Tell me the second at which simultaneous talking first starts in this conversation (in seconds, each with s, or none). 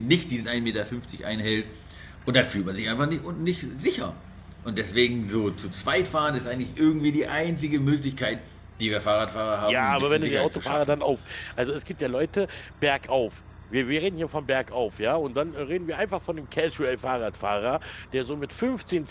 9.6 s